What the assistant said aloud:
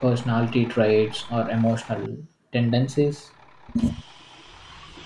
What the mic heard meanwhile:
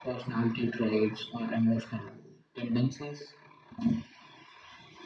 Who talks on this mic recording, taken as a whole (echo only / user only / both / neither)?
echo only